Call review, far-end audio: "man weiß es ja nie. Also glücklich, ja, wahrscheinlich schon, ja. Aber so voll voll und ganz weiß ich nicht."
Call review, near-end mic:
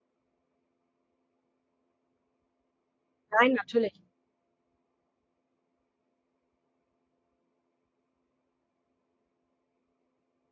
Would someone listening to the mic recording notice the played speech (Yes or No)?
No